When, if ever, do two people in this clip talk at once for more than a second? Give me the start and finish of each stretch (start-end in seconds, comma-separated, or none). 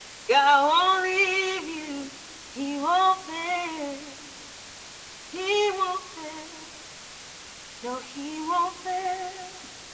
none